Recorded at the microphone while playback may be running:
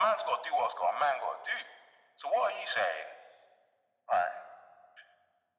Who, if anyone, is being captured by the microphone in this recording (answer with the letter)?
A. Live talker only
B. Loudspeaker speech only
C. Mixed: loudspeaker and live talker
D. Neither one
B